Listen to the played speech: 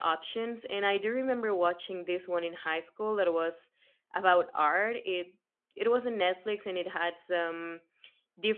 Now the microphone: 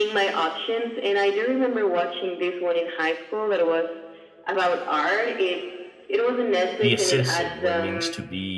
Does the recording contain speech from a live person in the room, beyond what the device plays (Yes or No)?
Yes